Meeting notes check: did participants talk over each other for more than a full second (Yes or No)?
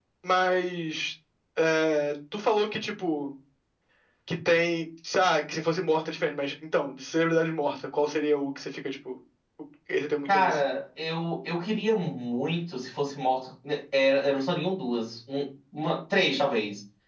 No